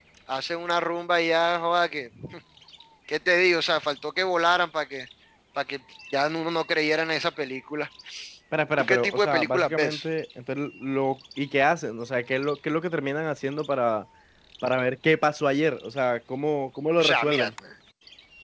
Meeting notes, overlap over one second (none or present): present